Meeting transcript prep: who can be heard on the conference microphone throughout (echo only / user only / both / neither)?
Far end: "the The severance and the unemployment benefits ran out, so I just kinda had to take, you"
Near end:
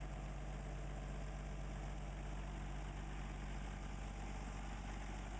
neither